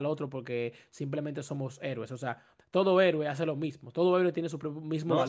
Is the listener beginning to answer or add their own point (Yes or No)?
Yes